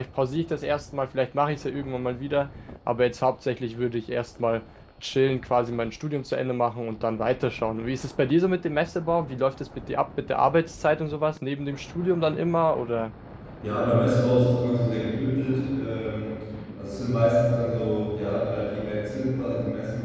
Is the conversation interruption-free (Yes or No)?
Yes